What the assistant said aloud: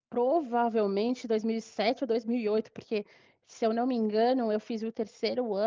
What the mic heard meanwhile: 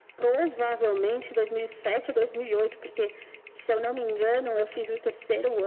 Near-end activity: none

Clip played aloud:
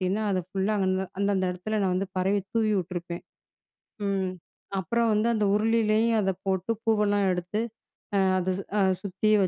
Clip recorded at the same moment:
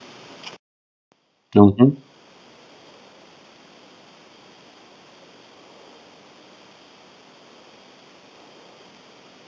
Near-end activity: present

